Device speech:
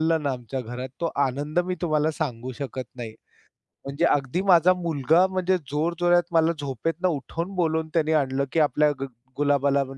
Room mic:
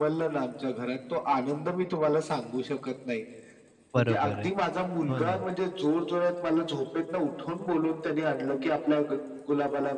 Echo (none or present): present